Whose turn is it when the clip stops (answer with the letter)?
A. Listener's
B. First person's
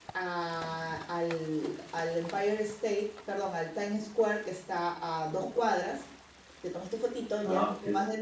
B